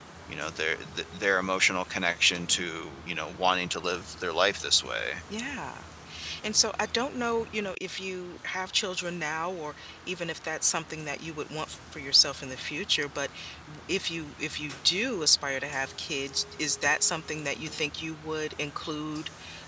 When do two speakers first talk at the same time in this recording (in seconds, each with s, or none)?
none